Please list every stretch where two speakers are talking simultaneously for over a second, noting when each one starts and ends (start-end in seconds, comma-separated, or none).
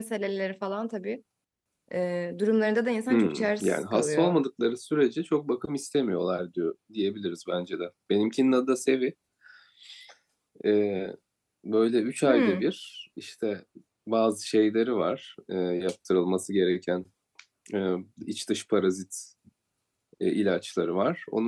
3.1-4.4